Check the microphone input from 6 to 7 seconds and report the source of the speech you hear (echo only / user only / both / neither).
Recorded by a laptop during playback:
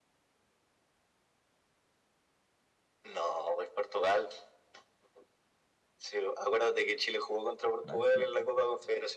echo only